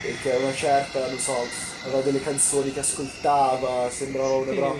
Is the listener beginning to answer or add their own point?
No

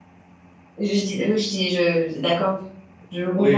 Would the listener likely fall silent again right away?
No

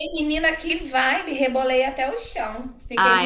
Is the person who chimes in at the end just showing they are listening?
No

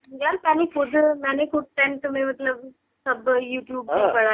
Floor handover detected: Yes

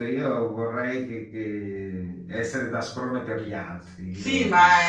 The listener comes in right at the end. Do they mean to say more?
Yes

